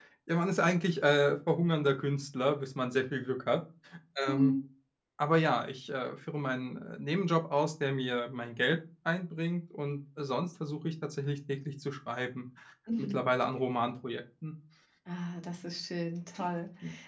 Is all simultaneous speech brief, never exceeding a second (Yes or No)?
Yes